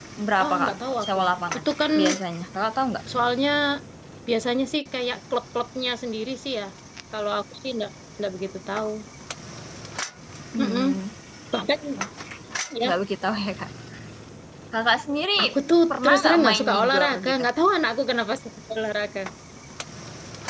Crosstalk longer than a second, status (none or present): present